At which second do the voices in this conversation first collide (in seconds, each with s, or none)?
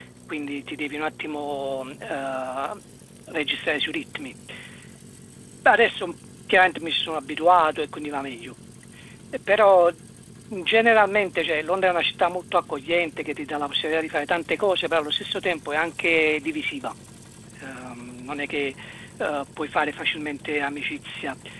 none